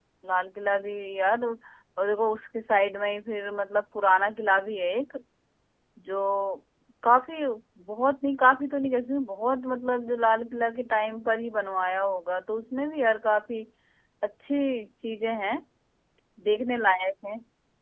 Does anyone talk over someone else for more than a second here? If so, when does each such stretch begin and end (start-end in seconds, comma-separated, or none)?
none